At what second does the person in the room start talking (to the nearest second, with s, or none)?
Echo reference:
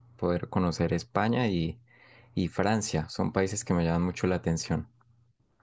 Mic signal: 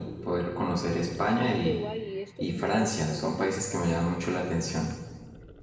1 s